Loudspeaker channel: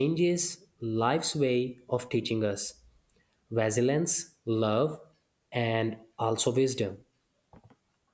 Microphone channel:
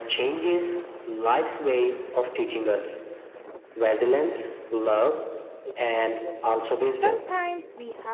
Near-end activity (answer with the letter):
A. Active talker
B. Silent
A